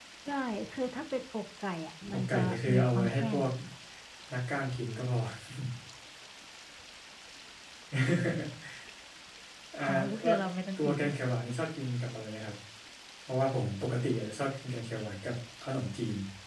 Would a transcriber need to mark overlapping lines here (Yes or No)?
Yes